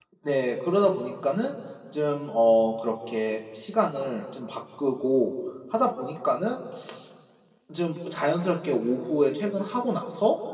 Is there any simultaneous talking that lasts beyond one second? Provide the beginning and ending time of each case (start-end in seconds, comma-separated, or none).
none